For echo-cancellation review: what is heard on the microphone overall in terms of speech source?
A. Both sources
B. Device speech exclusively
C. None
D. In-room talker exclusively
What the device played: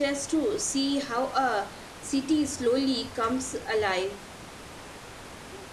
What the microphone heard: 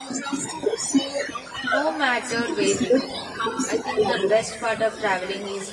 A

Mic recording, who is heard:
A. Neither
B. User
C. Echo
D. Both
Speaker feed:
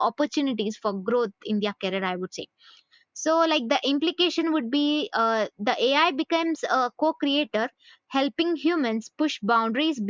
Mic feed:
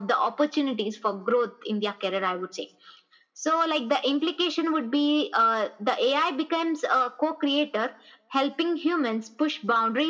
C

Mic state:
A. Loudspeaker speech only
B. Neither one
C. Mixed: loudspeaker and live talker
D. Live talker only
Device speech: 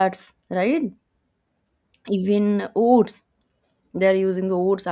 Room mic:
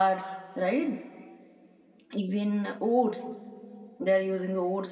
A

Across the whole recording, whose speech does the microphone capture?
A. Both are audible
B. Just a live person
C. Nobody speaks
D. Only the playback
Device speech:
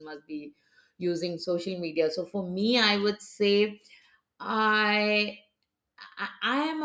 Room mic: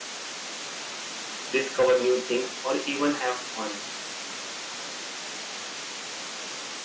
B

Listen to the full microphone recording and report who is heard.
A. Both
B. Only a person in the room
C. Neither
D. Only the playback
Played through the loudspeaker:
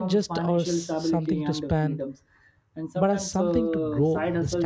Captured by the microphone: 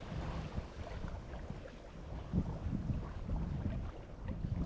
C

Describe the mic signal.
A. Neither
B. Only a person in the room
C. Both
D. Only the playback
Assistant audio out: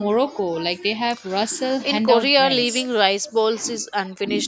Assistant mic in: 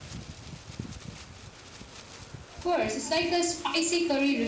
B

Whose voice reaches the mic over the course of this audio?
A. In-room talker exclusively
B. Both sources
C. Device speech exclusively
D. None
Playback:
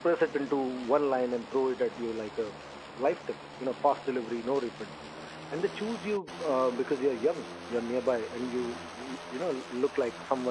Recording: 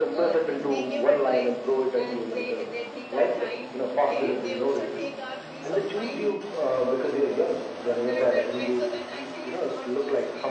B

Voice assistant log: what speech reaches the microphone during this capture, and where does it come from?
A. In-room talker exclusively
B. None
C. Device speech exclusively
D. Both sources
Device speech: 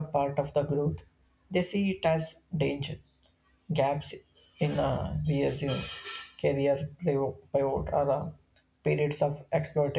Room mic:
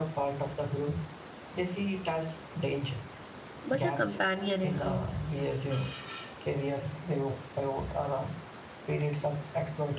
D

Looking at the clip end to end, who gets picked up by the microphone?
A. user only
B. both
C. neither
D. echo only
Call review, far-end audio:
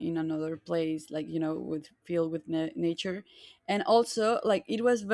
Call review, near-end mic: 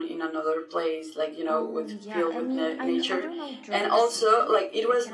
B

